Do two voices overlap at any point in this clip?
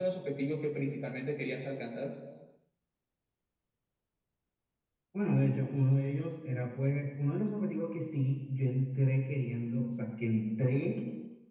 No

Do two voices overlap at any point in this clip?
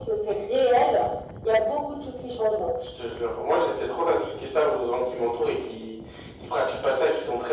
No

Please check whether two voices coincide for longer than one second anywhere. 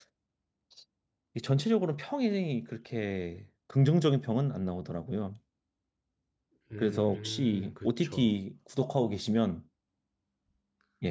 Yes, from 6.8 s

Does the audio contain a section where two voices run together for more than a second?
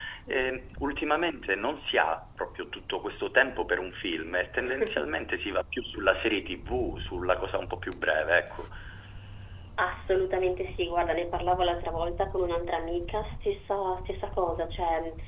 No

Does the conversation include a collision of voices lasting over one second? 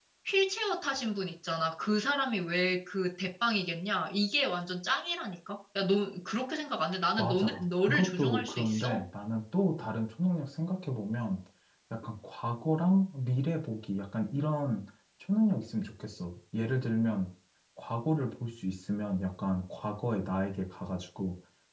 Yes, from 7.2 s

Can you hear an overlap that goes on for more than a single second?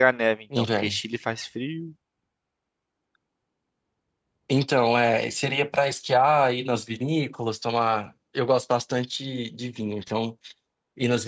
No

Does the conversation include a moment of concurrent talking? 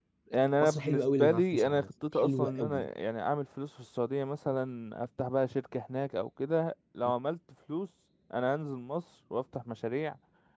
Yes, from 0.6 s

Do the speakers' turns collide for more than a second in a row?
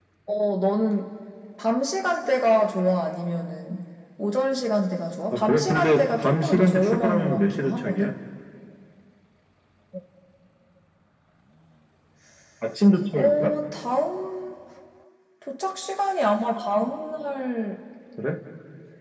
Yes, from 5.3 s

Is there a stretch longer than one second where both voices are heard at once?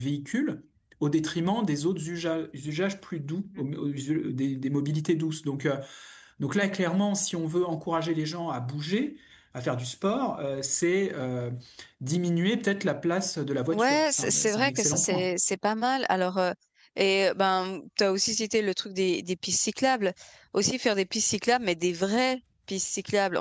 Yes, from 13.7 s

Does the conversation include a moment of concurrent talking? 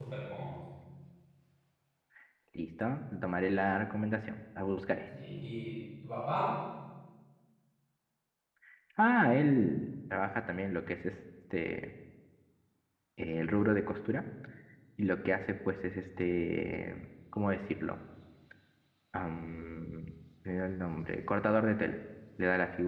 No

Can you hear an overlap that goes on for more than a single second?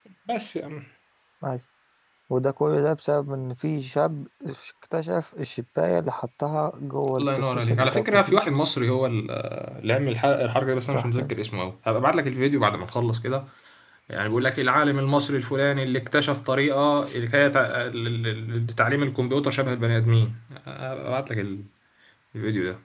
Yes, from 7.2 s

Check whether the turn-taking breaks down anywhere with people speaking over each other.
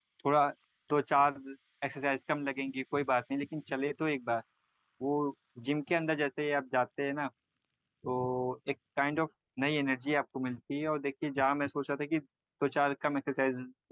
No

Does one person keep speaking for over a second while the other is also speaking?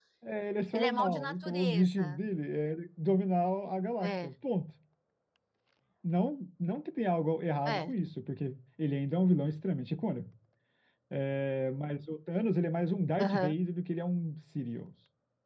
Yes, from 0.7 s

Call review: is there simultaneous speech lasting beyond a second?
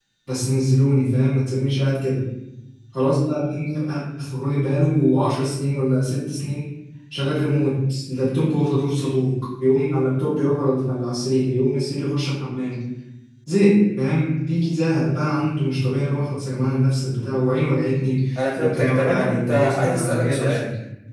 Yes, from 18.4 s

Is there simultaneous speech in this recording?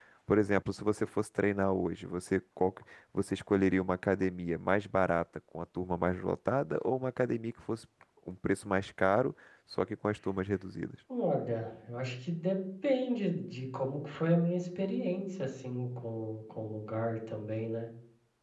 No

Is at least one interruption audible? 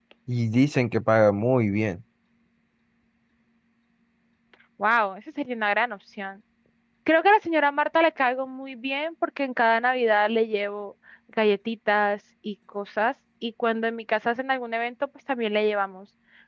No

